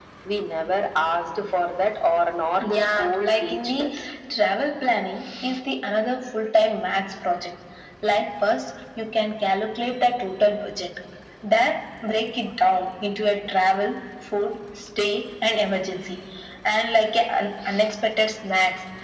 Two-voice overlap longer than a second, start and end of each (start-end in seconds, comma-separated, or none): 2.6-4.0